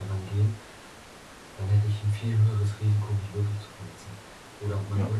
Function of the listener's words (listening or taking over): listening